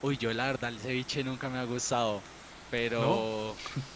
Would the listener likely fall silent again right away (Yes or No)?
Yes